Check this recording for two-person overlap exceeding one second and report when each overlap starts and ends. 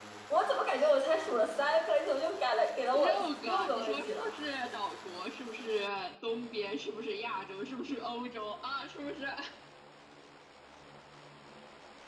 2.9-4.3

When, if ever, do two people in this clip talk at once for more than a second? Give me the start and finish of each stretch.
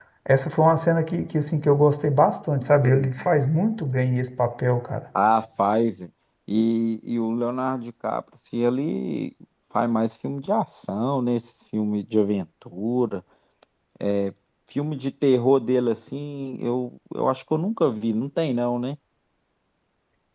none

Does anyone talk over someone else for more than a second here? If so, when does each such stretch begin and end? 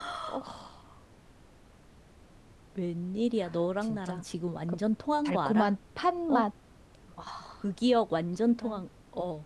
none

